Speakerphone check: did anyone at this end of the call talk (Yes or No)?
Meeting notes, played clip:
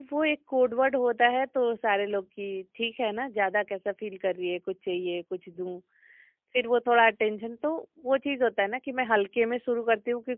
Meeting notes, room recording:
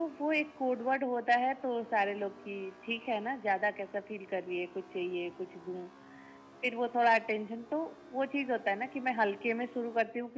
No